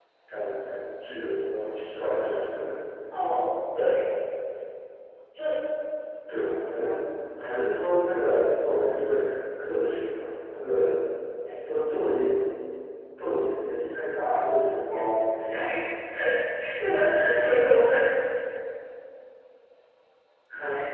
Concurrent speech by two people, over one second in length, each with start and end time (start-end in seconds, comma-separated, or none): none